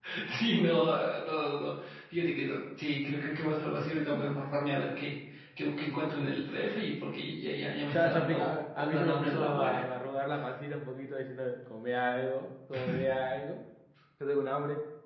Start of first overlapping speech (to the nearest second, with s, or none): 8 s